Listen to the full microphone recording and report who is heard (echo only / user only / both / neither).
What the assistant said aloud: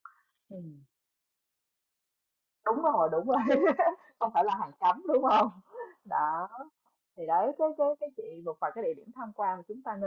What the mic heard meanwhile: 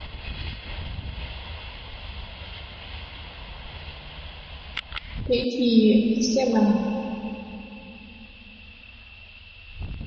user only